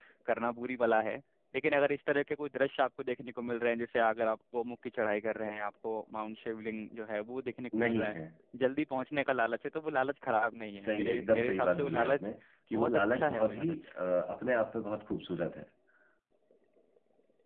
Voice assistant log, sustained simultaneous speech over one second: present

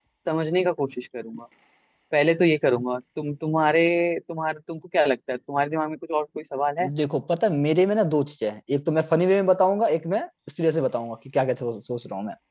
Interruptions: none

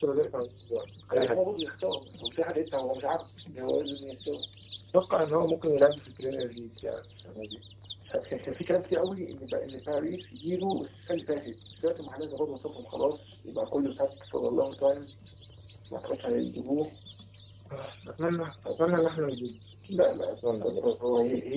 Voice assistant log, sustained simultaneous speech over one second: none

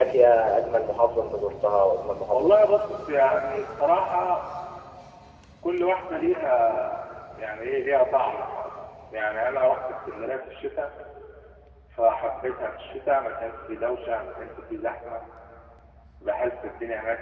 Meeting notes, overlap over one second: none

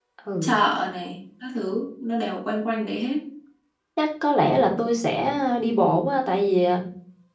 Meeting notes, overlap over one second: none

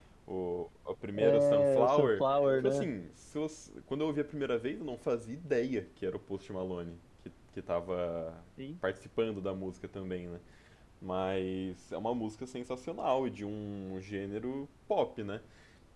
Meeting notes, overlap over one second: present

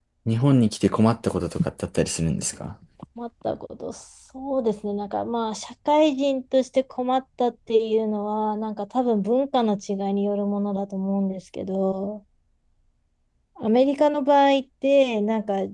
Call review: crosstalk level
none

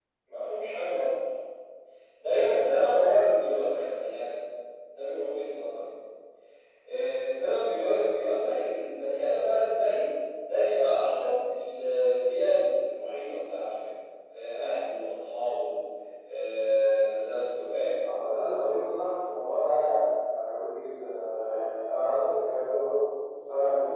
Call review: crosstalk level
none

